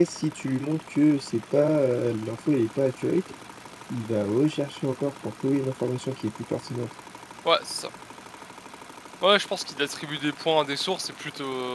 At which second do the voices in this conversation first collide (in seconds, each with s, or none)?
none